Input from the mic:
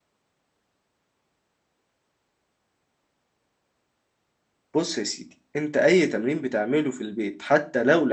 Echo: none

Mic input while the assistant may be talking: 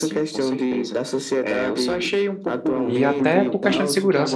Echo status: present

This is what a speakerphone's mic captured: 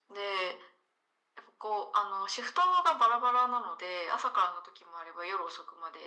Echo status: present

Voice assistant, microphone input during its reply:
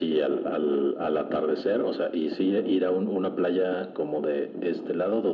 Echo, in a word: present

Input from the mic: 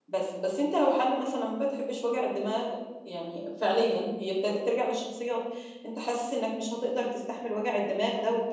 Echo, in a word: none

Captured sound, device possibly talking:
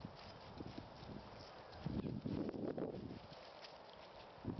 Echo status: none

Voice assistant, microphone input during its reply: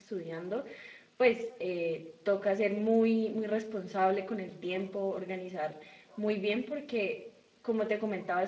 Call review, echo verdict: none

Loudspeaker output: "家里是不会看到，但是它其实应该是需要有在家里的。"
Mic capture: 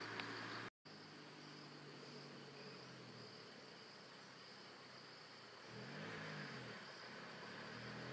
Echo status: none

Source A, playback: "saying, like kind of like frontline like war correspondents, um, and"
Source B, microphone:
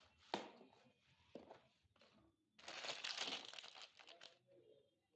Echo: none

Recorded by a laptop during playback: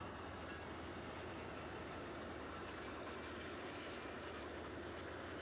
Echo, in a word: none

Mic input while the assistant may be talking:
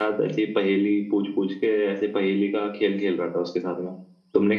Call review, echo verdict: none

